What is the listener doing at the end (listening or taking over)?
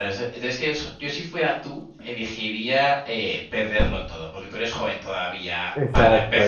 listening